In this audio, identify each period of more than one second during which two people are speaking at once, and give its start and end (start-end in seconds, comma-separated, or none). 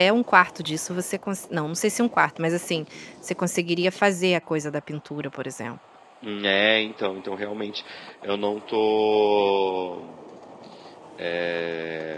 none